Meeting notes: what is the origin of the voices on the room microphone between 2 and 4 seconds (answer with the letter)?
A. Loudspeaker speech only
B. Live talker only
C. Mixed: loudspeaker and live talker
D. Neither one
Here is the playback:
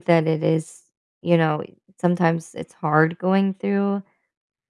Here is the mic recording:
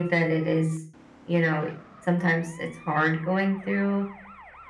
A